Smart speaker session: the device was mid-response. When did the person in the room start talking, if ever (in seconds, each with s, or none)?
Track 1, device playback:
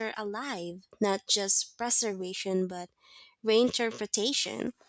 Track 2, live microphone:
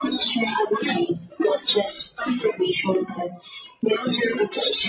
none